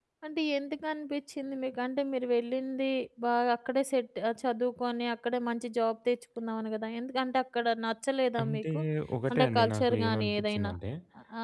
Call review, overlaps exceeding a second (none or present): present